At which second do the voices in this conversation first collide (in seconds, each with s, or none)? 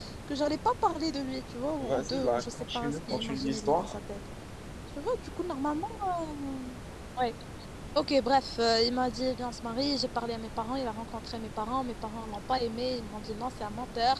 1.8 s